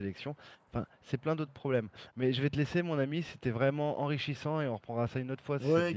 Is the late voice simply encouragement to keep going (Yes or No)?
No